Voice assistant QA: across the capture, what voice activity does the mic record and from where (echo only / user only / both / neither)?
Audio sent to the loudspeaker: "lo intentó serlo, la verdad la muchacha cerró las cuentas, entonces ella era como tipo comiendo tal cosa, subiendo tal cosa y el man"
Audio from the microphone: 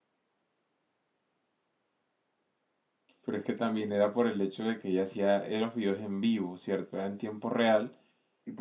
user only